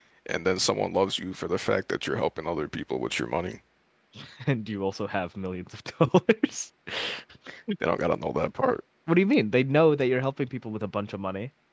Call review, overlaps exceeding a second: none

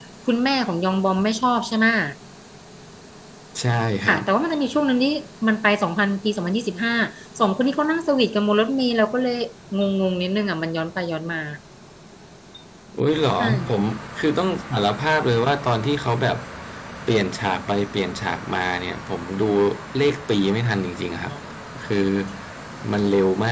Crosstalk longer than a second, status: none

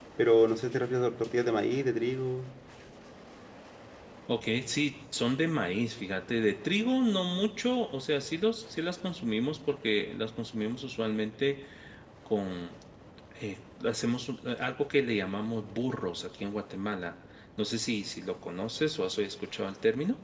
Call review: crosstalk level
none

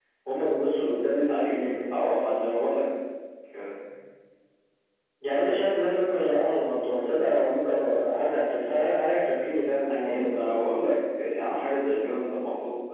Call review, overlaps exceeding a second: none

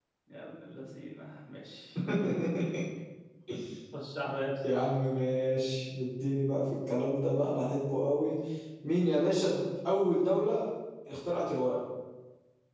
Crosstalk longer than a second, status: none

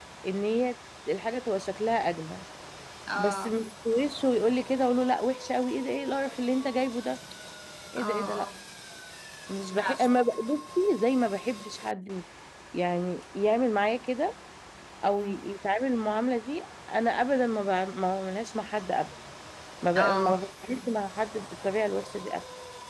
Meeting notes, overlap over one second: none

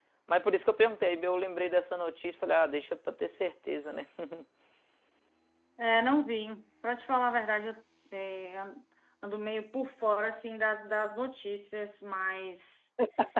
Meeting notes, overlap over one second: none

